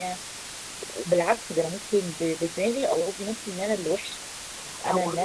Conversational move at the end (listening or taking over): taking over